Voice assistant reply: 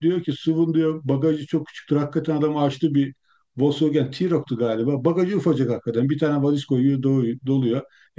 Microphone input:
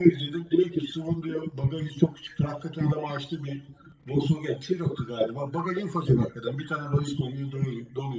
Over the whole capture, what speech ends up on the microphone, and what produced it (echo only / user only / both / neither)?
echo only